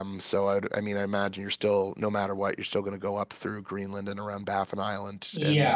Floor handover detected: Yes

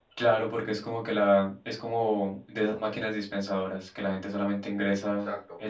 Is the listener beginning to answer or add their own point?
No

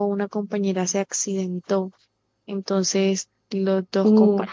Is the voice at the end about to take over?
No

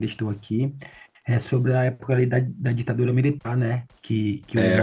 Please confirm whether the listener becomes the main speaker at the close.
No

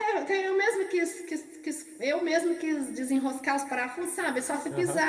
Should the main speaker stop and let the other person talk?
No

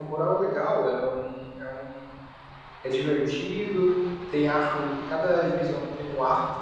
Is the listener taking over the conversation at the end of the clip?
No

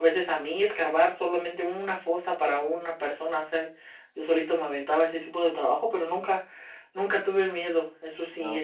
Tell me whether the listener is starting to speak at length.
No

